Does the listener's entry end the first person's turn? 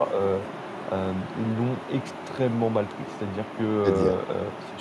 No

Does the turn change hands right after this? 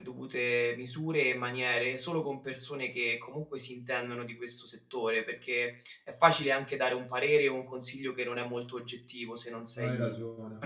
No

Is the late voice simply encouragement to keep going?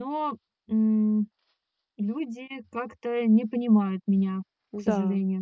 No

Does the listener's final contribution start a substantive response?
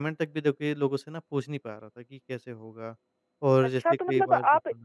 Yes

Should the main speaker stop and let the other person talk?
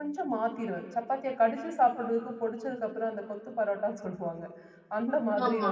No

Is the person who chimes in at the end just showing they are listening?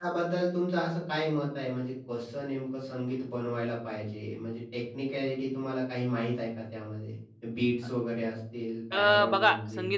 No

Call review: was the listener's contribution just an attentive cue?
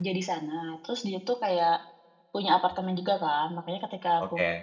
Yes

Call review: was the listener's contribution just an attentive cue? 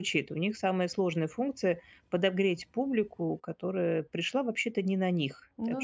Yes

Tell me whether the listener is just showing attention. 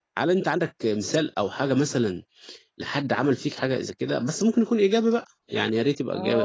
No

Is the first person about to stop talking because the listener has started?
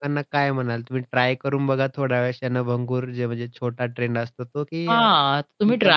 Yes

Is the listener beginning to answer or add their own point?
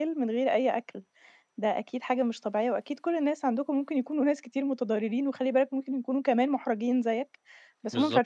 No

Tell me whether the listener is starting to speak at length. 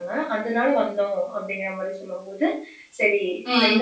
No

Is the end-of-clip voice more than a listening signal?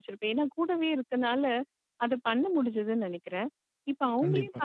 No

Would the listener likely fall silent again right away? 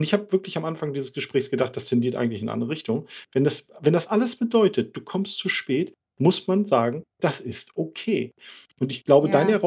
Yes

